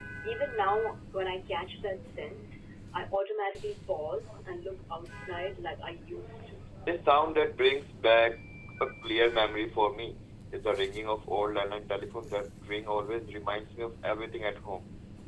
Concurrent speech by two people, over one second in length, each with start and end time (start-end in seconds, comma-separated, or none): none